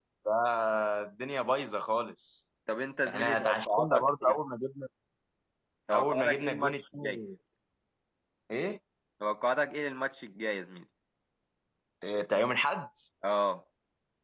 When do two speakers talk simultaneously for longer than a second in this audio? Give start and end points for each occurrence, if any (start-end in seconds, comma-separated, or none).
3.1-4.4, 5.9-7.2